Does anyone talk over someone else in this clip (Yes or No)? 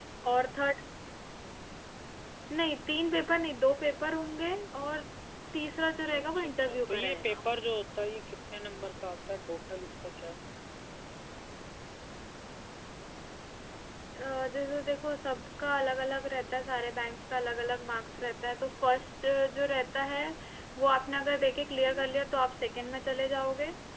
Yes